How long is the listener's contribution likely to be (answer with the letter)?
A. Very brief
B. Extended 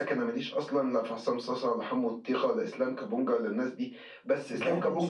A